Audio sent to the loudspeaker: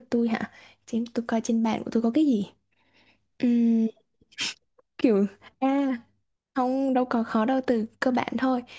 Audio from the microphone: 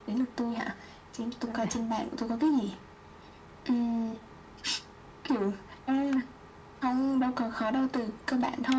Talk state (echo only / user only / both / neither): both